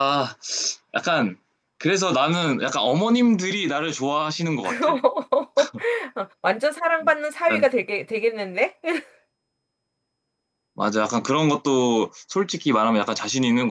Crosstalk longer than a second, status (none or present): none